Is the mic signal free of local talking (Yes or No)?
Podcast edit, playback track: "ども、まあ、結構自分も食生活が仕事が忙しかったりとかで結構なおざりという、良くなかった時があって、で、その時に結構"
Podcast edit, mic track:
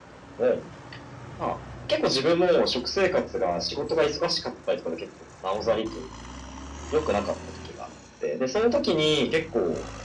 Yes